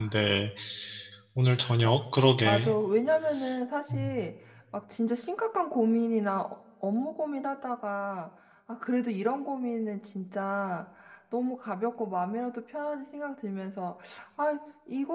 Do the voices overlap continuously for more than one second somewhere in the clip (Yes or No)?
No